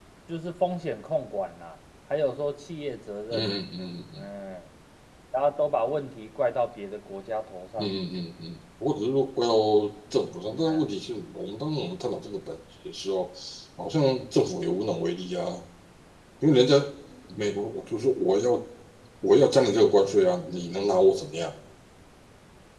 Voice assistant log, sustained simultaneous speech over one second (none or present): none